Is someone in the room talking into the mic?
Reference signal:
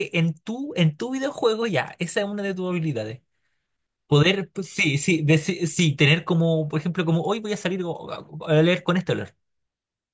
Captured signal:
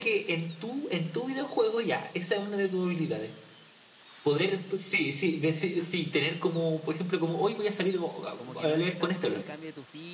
Yes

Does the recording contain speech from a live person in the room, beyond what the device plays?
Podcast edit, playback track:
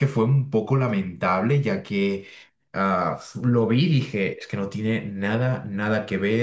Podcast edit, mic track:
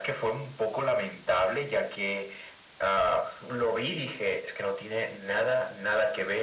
No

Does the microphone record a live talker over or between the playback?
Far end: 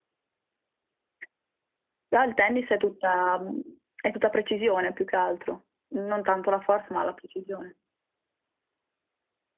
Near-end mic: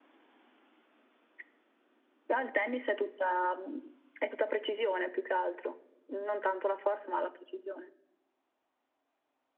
No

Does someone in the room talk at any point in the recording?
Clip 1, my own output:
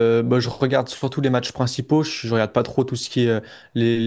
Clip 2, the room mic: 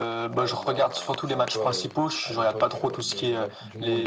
Yes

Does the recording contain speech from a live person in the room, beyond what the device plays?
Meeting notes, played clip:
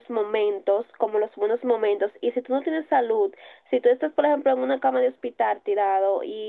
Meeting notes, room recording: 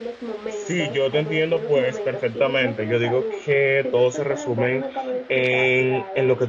Yes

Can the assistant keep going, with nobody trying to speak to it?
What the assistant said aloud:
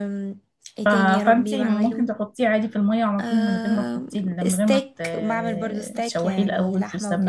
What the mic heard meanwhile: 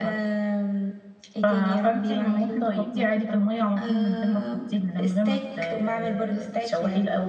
No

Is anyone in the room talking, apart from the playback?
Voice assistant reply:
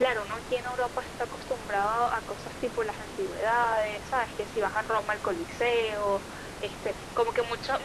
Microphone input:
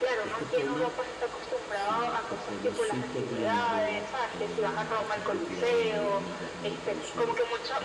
Yes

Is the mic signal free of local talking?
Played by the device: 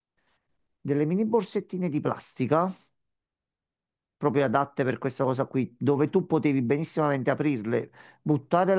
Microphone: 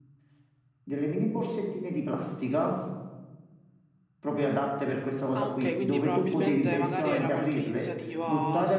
No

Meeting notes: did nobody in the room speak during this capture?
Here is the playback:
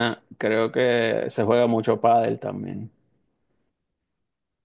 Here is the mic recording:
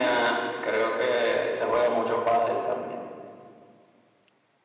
Yes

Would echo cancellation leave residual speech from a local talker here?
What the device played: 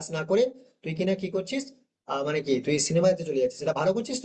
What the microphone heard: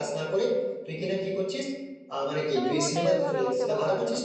Yes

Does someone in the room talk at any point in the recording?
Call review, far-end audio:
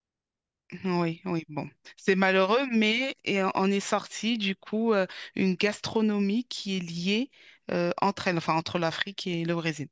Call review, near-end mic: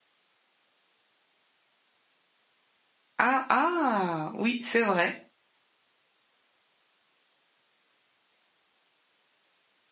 Yes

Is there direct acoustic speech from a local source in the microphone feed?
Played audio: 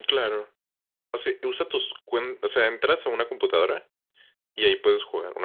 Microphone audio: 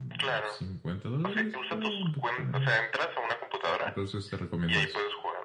Yes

